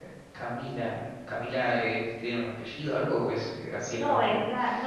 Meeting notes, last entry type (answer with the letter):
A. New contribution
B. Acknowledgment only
A